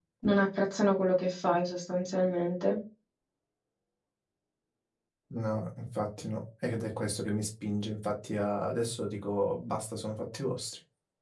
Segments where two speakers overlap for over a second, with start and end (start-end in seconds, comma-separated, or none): none